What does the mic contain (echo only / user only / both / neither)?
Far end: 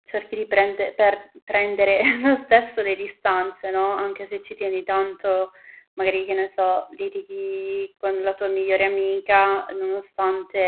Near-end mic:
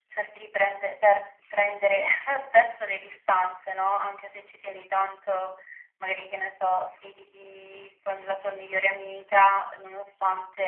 echo only